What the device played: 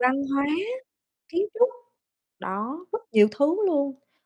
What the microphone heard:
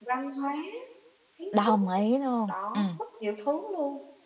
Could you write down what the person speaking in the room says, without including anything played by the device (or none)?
Đồng ý luôn. Ừm.